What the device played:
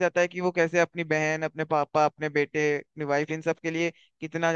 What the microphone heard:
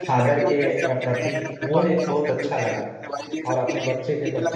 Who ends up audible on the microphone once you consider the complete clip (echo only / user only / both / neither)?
both